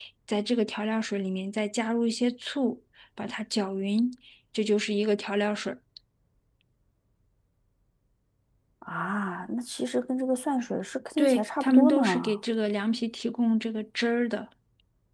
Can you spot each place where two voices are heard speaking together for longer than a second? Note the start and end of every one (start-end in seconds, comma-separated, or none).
11.2-12.4